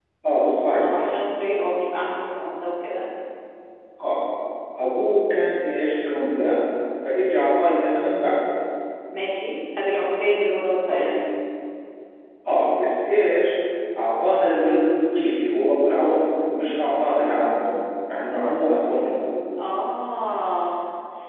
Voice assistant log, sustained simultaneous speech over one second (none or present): none